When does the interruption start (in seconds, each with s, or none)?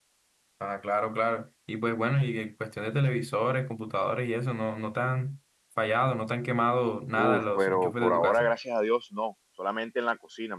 7.2 s